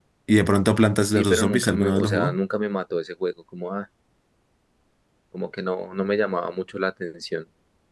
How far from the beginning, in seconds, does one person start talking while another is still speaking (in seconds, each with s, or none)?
1.1 s